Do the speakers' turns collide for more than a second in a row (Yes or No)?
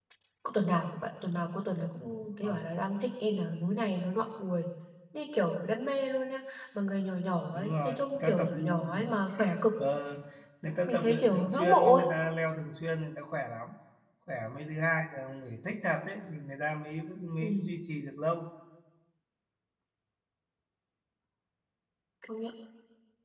Yes